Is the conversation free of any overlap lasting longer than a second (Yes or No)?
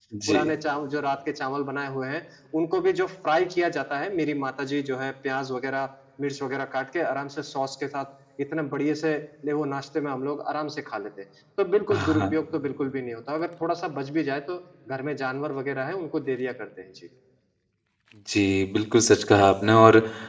Yes